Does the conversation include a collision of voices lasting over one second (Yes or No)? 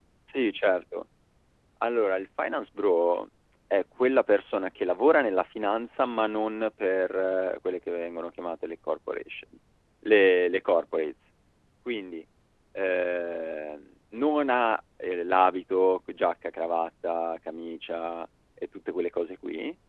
No